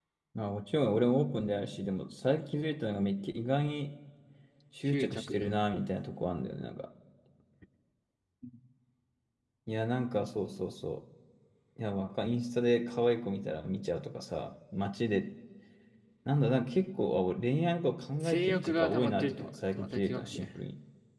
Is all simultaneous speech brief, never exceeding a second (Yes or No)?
No